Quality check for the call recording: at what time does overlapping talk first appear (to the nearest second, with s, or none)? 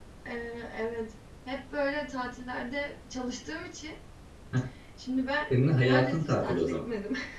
6 s